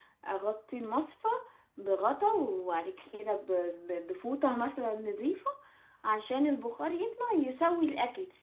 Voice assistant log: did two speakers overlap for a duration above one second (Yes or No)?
No